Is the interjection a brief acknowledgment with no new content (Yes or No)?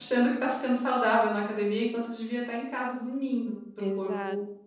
No